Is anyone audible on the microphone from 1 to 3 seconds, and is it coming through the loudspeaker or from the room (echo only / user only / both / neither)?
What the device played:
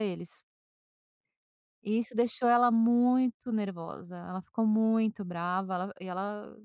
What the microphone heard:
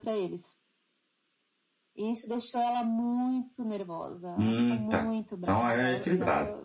echo only